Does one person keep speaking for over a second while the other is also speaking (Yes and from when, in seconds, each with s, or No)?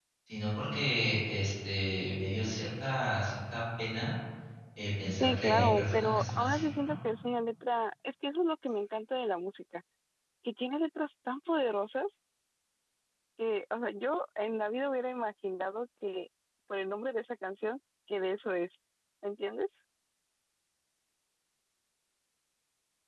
Yes, from 5.2 s